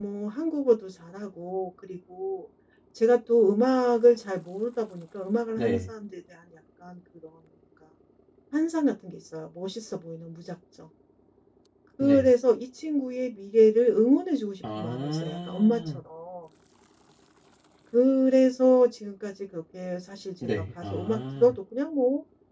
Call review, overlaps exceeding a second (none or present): present